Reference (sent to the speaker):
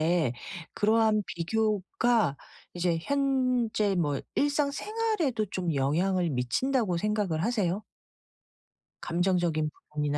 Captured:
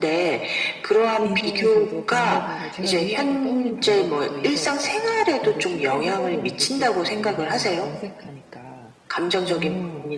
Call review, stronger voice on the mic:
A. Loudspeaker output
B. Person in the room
A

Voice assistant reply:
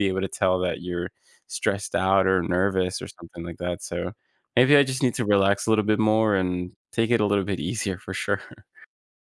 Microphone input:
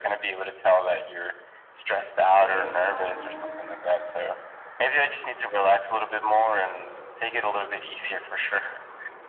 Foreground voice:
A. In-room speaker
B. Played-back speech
B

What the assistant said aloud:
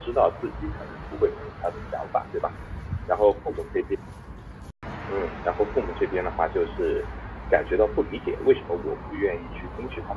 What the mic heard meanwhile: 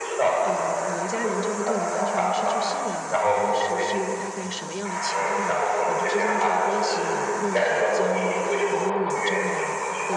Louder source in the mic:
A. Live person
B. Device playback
B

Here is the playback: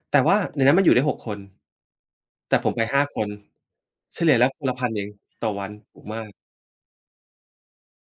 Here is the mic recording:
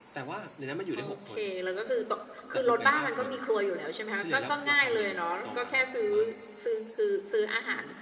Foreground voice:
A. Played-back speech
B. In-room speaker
B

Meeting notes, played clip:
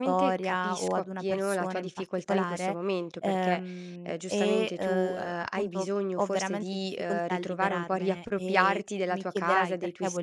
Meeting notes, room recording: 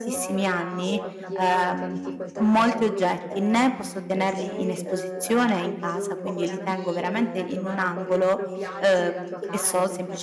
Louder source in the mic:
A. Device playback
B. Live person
B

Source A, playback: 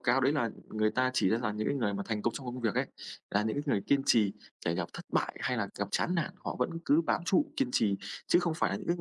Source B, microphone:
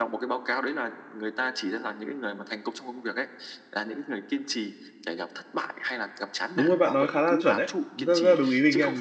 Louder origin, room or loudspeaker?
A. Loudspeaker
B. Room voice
B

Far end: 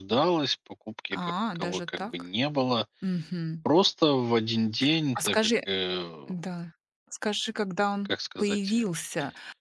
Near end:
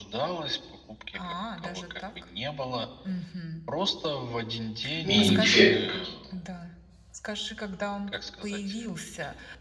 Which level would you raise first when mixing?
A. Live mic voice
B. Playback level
B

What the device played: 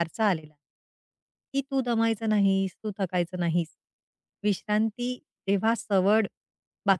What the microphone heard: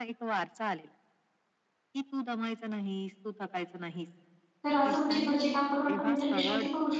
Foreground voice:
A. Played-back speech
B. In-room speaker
B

